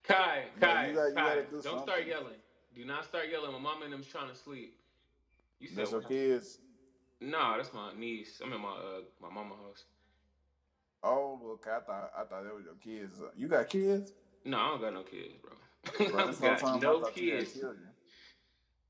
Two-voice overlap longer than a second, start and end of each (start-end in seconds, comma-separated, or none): 0.6-2.1, 16.2-17.6